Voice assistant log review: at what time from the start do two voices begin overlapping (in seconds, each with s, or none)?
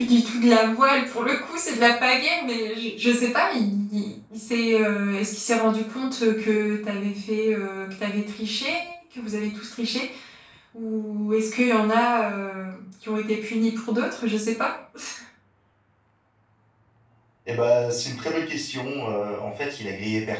none